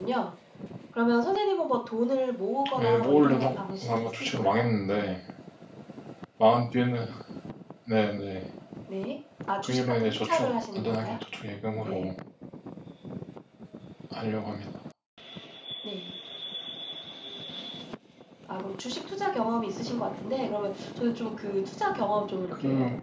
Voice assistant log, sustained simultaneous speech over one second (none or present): present